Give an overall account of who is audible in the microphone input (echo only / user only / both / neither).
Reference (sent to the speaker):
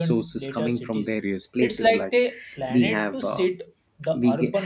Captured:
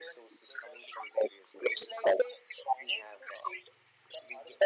echo only